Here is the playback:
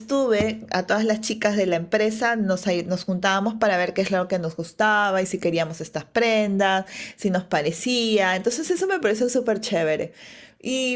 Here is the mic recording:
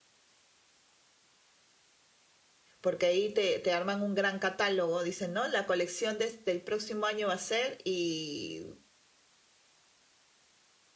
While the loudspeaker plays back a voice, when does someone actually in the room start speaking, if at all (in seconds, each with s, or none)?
2.8 s